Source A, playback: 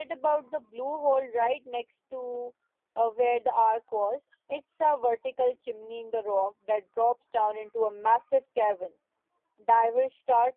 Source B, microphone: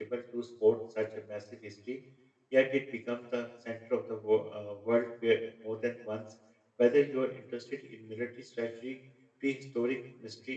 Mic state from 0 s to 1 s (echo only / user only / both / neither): user only